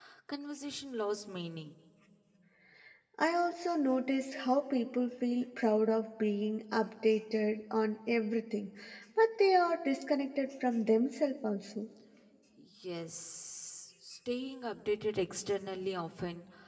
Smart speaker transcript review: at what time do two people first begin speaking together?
none

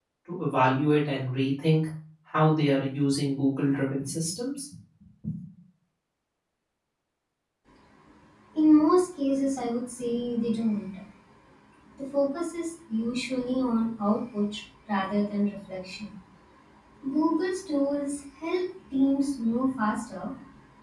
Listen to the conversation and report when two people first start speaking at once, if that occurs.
none

